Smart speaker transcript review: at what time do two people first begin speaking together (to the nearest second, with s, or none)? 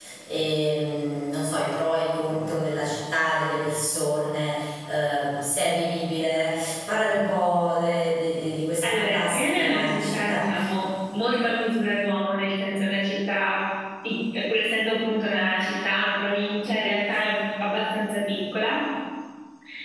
9 s